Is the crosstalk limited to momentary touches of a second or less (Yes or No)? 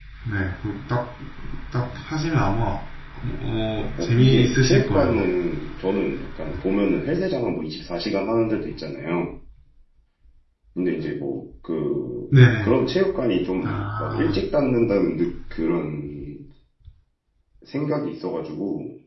No